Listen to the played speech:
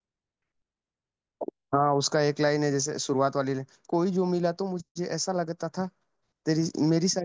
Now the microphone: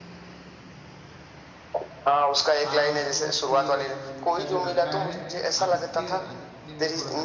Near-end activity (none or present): present